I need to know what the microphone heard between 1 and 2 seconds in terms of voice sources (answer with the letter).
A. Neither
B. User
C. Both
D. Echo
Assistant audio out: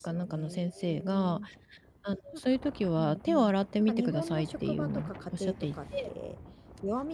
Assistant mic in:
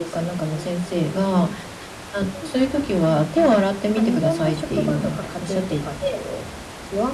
D